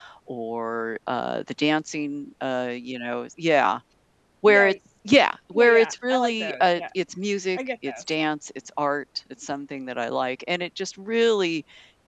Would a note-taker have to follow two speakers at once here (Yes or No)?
Yes